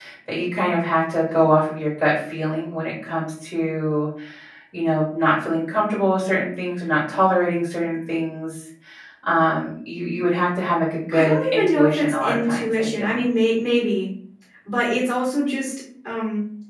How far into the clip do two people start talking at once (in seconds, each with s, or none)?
11.1 s